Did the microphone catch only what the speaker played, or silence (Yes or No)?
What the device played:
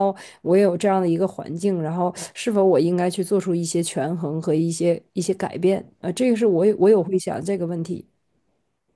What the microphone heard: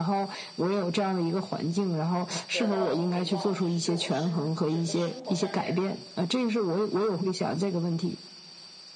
No